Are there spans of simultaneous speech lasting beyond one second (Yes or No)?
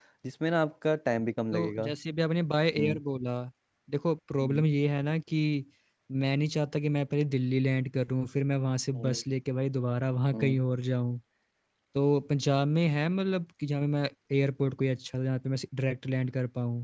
No